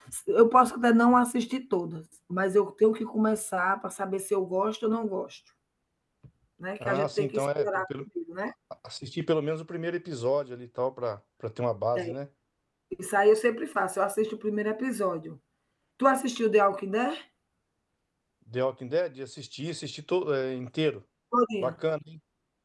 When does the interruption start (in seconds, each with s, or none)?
6.8 s